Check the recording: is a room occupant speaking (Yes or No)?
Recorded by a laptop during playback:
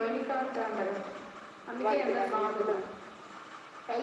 Yes